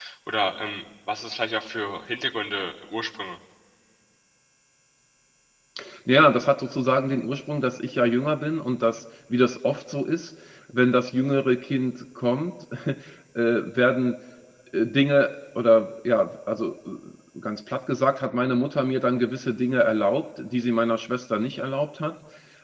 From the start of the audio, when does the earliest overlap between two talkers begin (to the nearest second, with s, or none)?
none